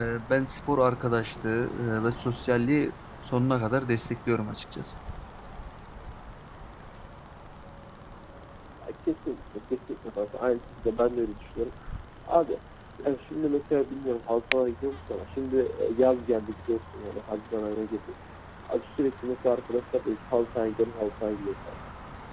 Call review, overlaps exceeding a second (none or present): none